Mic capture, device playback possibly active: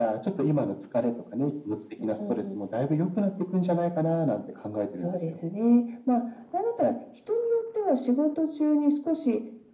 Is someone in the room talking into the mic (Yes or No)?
No